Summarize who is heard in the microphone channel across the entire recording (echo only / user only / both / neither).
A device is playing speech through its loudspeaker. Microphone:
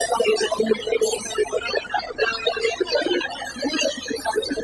echo only